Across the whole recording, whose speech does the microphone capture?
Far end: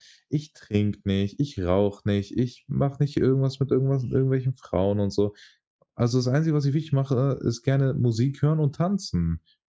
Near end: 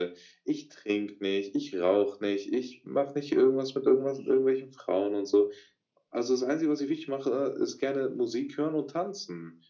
echo only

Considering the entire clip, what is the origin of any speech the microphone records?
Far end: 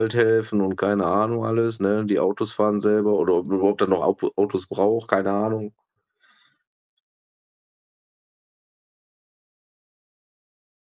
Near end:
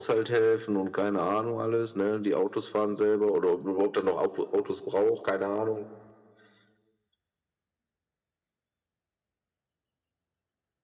echo only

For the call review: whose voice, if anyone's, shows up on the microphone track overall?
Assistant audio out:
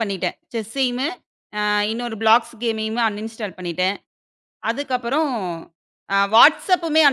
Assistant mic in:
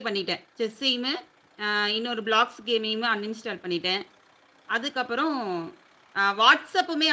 echo only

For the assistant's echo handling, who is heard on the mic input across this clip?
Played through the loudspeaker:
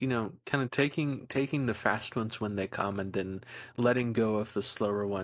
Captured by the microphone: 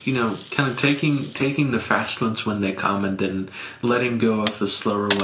echo only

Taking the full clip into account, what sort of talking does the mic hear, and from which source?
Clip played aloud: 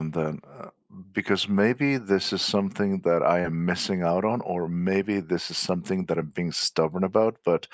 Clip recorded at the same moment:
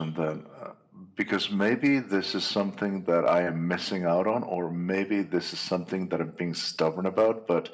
echo only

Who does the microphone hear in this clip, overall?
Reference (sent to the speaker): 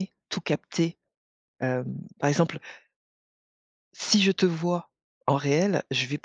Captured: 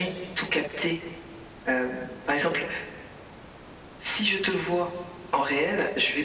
echo only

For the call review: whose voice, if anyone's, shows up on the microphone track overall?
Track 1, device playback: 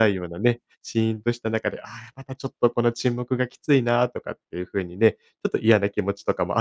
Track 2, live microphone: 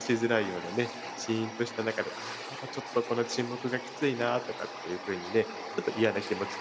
echo only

